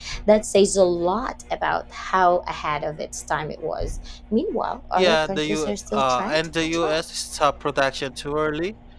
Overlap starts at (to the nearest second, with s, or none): 5 s